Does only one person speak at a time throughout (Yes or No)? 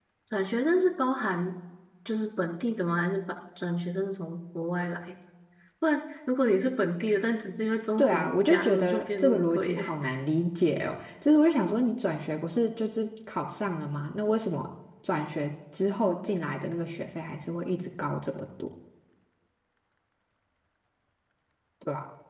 No